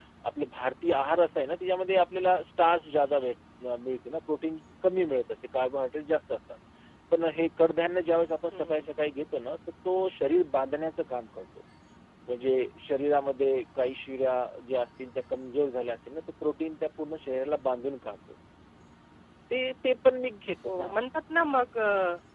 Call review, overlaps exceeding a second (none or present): none